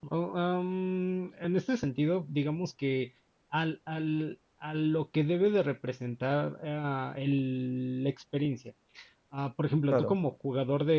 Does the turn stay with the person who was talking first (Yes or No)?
Yes